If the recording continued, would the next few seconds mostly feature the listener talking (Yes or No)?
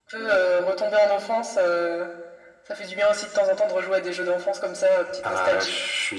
Yes